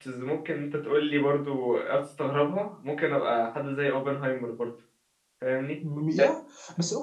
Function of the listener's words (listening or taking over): taking over